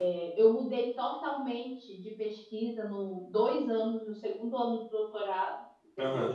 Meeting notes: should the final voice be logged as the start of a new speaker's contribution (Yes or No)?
No